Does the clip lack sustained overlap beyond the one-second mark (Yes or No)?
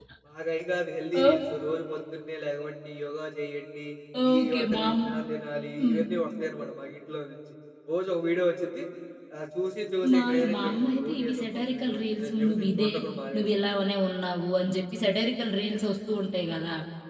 No